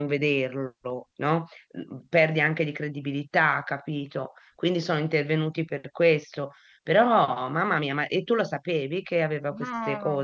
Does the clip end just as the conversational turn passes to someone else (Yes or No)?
Yes